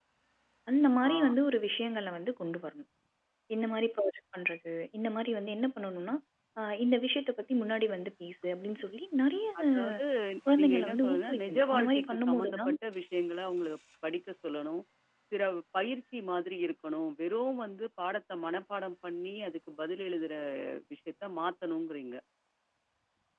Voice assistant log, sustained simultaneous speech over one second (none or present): present